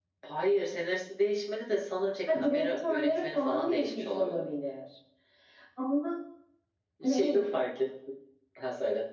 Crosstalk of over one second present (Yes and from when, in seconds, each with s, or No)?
Yes, from 2.3 s